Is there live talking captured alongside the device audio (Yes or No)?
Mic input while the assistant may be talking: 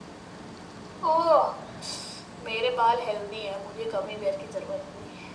No